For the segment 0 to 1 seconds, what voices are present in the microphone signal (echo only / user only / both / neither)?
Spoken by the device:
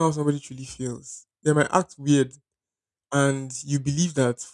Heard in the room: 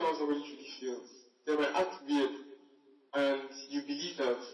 echo only